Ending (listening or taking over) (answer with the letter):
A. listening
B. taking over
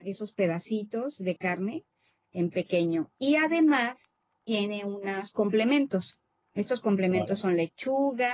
A